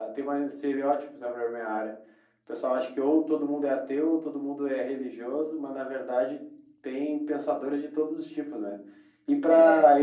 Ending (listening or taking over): listening